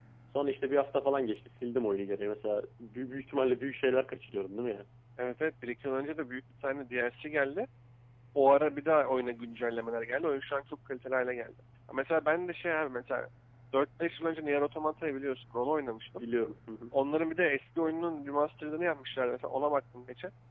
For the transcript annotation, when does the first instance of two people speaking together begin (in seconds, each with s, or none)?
none